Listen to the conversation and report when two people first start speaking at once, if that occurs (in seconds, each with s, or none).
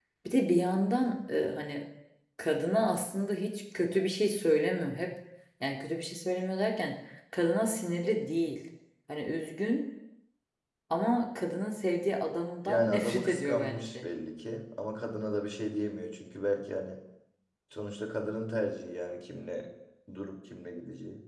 12.7 s